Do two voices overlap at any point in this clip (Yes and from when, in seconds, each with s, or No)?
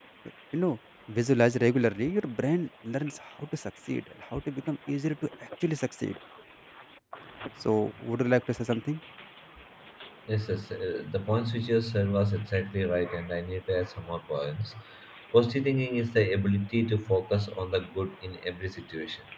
No